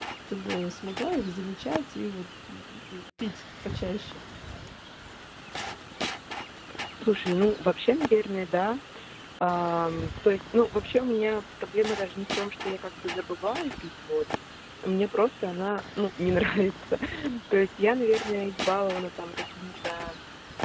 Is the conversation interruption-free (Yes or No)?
Yes